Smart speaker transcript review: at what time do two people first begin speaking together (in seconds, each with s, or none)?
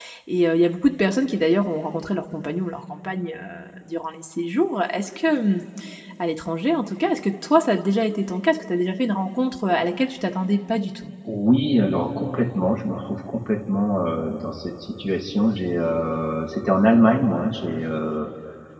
none